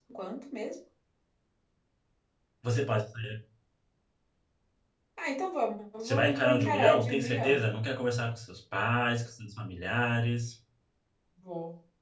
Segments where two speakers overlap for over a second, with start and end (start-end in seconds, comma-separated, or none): 6.0-7.7